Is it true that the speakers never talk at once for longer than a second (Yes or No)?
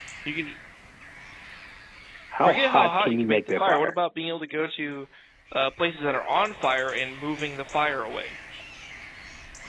No